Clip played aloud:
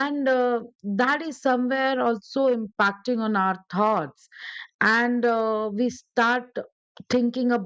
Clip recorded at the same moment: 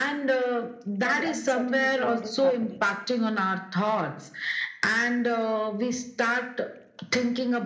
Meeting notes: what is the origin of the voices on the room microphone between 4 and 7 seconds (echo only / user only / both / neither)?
echo only